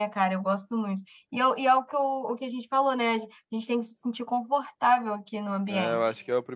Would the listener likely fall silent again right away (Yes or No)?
No